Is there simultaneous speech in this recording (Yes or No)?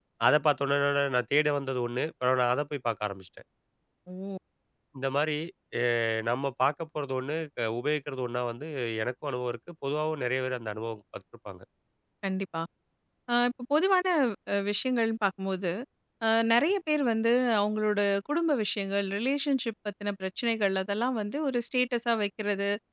No